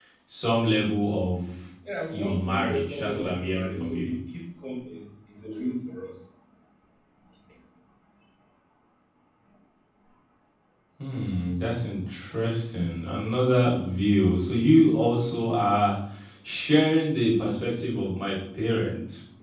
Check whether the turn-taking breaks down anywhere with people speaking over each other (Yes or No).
Yes